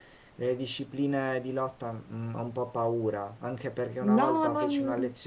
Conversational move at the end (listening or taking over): listening